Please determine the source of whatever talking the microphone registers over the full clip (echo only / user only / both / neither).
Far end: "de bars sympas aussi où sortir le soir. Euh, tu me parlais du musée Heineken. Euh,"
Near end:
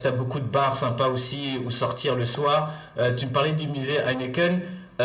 echo only